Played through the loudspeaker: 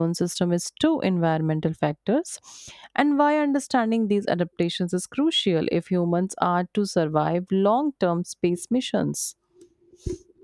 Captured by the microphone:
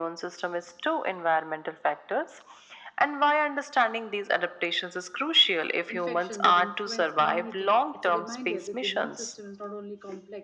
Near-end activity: present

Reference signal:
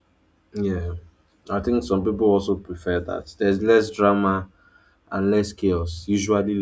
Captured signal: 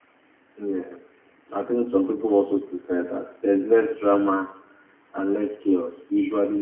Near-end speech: none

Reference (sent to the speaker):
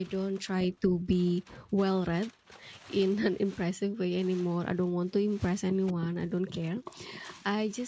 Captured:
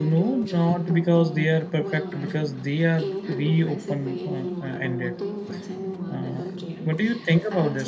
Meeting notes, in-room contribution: present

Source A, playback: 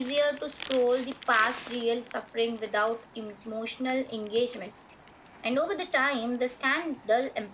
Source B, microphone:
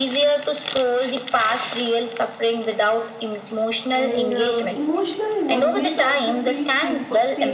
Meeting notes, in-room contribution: present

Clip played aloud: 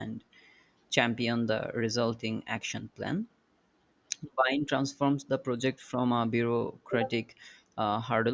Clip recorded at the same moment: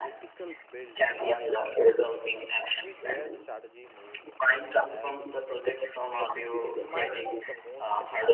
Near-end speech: present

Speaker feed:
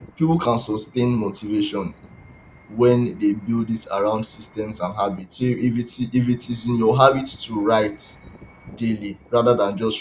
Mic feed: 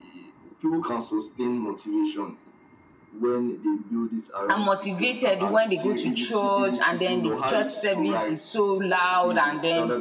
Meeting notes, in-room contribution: present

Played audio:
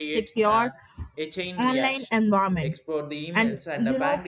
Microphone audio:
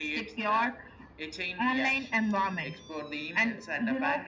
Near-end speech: none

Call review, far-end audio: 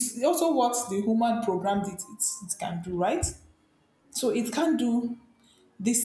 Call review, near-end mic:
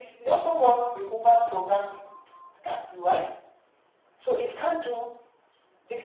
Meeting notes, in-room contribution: none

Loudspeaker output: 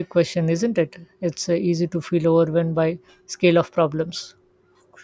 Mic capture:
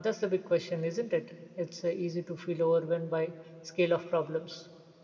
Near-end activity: none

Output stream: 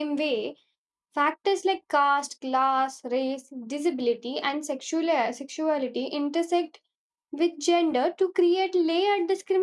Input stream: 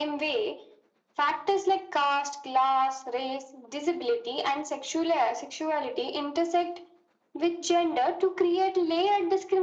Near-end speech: none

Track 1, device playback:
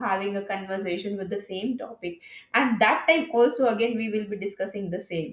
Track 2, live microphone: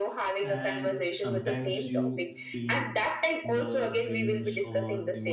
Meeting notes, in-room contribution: present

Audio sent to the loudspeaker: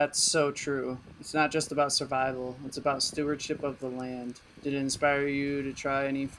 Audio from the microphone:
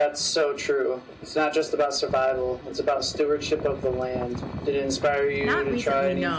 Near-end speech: present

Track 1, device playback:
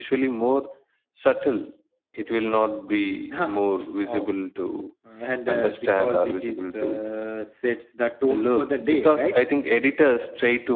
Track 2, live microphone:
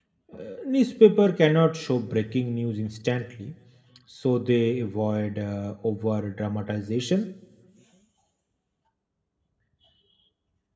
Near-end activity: present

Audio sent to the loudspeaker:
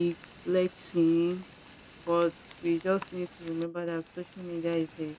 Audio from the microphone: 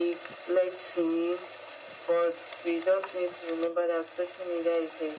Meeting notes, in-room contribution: none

